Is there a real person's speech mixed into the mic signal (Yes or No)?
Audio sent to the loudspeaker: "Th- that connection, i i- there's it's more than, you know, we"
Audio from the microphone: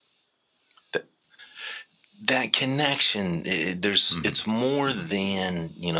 Yes